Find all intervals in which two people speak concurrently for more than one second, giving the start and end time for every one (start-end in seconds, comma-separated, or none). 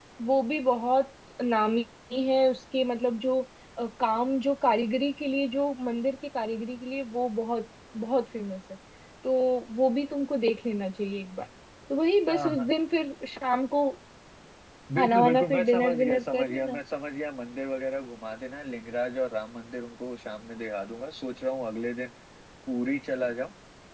14.9-16.8